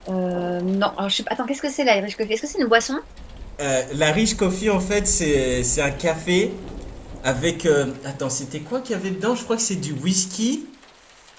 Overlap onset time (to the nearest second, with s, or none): none